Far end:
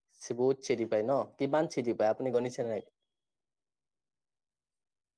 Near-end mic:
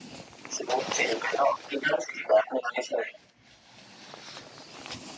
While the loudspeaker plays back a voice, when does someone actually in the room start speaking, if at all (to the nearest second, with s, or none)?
none